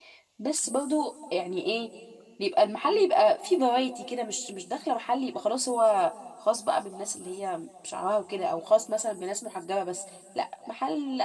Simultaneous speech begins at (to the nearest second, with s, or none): none